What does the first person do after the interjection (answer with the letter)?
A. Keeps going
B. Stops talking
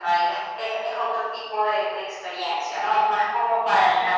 A